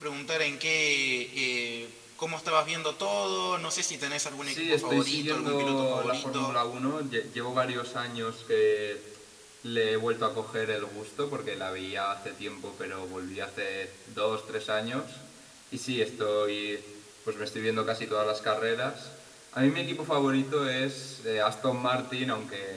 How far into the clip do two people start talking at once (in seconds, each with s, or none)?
4.4 s